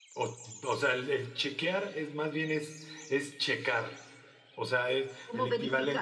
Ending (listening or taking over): listening